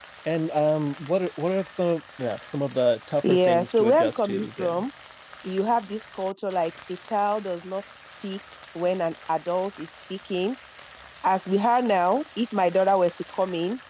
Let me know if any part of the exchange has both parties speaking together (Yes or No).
Yes